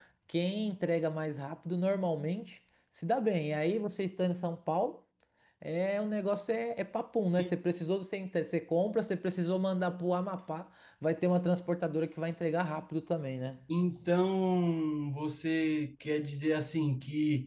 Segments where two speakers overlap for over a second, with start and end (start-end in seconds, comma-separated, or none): none